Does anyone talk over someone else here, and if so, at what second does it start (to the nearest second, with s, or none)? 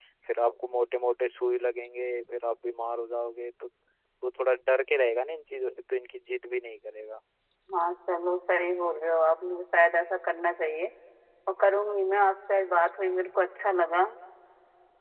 none